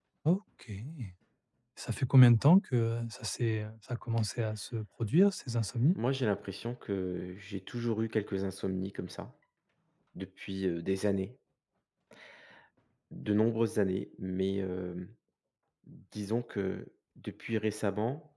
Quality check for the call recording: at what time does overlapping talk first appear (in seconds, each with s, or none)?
none